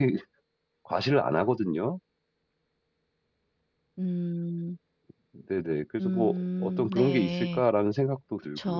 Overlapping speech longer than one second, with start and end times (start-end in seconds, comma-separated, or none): 6.0-7.6